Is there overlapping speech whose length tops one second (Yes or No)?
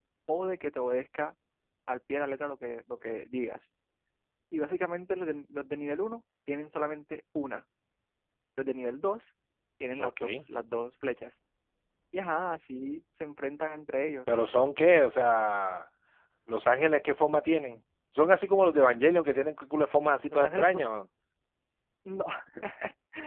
No